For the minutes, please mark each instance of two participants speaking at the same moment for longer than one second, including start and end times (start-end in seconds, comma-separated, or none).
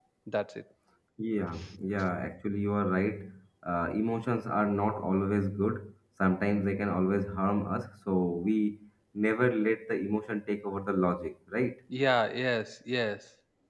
none